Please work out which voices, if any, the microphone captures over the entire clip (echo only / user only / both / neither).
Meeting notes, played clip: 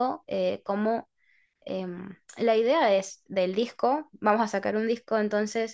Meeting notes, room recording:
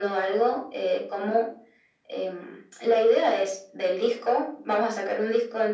echo only